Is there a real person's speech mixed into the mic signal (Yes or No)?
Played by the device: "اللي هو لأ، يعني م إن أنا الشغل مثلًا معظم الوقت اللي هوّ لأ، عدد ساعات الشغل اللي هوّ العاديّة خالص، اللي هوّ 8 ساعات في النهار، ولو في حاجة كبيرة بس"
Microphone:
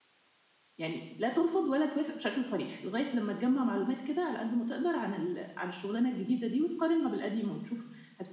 Yes